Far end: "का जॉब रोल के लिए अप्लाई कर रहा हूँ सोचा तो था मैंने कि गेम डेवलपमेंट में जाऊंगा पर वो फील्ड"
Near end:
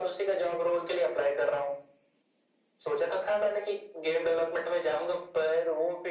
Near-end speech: none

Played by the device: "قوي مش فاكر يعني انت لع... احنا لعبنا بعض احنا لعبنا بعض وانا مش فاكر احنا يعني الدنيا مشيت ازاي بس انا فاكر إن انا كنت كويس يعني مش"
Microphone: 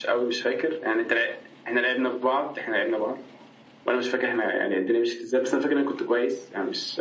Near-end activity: none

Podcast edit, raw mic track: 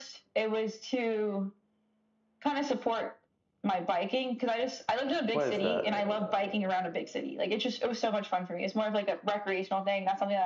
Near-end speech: present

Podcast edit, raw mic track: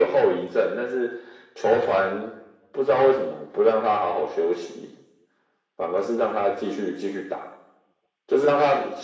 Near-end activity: none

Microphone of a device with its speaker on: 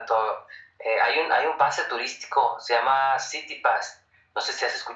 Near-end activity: none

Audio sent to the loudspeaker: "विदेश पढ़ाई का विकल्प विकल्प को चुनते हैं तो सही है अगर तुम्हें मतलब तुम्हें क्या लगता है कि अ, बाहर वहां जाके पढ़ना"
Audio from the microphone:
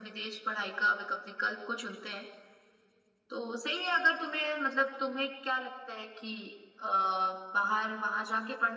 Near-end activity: none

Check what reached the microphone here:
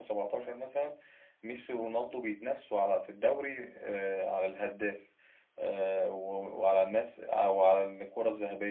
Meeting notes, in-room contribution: present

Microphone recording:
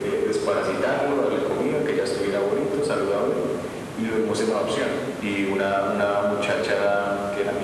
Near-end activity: none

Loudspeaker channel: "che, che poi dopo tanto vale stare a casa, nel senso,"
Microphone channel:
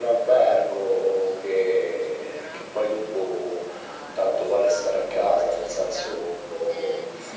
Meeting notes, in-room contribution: present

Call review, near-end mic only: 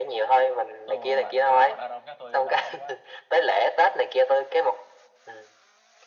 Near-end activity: present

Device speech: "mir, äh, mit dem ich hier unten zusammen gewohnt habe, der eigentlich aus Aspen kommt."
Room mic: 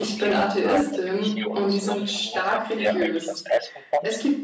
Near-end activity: present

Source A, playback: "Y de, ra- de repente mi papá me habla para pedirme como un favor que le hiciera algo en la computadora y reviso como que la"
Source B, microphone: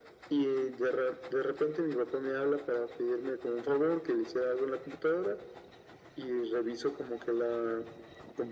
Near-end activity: none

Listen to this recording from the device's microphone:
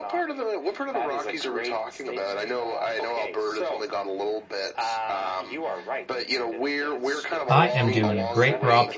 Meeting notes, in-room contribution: present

